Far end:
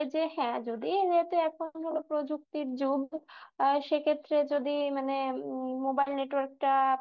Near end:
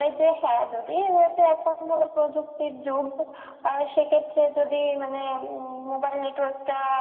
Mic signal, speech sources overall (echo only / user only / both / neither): echo only